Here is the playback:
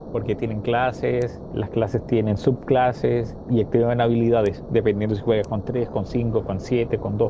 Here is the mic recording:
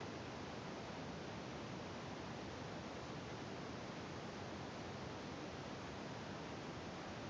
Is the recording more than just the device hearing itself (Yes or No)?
No